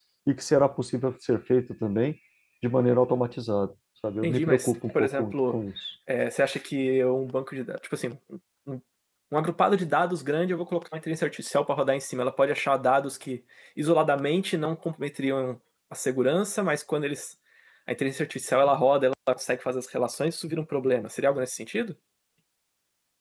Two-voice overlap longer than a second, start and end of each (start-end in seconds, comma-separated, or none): 4.2-5.6